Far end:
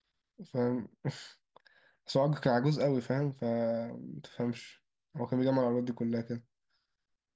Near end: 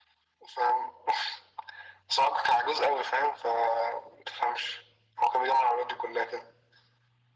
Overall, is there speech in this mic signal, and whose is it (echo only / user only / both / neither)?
echo only